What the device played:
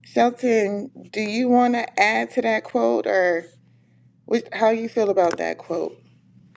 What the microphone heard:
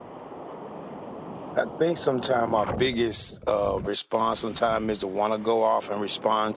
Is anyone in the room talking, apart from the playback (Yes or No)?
Yes